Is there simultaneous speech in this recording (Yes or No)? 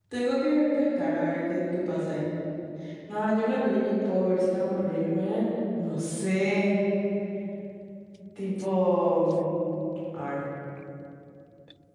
No